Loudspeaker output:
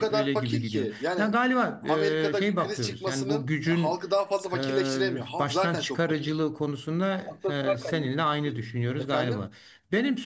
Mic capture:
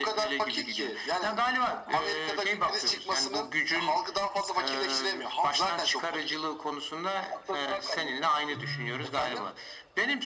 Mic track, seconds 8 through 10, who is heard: both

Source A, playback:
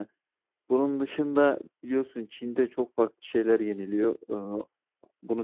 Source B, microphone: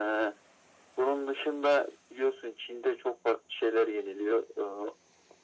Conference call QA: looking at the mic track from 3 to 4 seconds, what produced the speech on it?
echo only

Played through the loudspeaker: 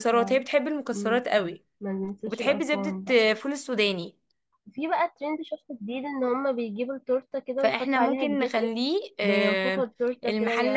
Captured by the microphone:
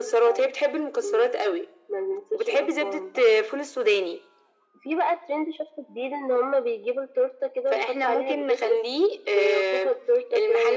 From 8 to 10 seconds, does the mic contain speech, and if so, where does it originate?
echo only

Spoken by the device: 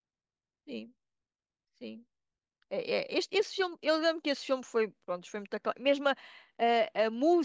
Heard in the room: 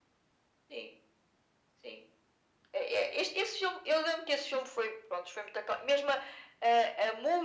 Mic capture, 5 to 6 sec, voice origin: echo only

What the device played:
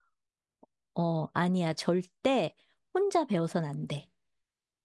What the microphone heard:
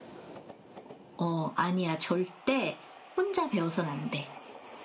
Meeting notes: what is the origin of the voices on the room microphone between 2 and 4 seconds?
echo only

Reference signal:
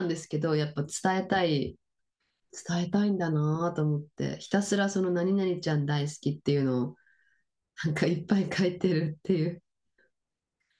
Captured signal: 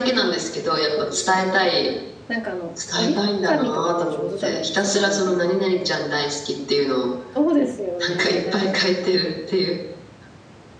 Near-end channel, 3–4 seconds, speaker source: both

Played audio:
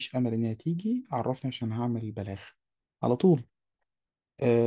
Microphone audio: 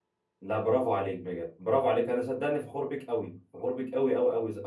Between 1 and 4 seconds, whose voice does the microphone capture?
user only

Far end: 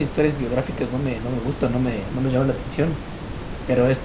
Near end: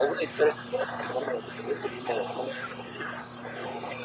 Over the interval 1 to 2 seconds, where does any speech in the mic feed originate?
echo only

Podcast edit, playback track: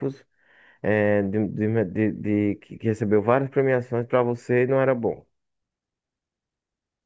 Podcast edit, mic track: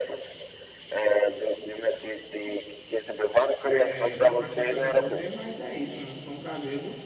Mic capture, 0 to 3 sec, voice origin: echo only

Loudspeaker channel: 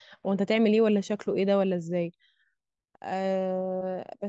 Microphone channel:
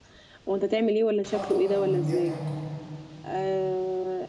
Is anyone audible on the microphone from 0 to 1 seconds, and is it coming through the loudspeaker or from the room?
echo only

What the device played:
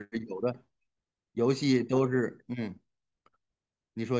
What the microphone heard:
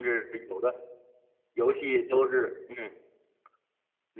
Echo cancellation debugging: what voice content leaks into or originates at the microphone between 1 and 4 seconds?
echo only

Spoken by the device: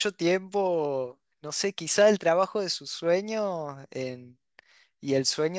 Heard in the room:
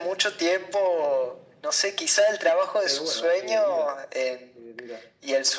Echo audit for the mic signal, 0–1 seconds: echo only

